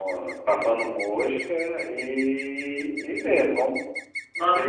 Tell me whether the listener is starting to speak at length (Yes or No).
Yes